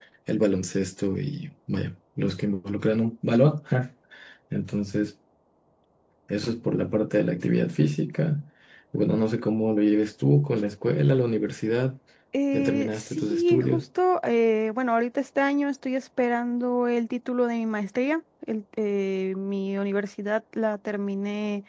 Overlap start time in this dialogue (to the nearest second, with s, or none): 13 s